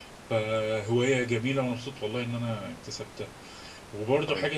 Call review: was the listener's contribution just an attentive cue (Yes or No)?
Yes